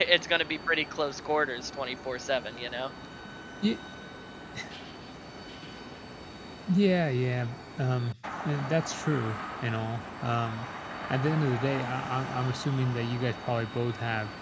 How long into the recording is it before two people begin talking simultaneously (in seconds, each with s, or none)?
none